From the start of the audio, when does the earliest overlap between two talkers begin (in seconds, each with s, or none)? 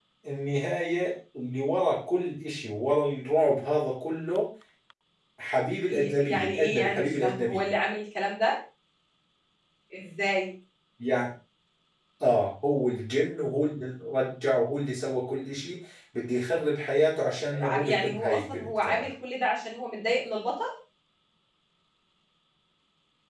5.9 s